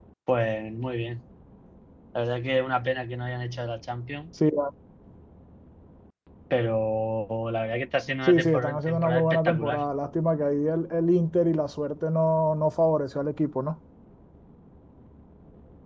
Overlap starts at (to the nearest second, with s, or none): 8 s